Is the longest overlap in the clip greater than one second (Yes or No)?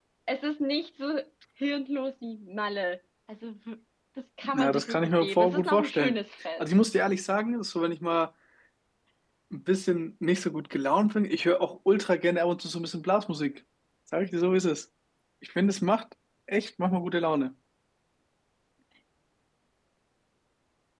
Yes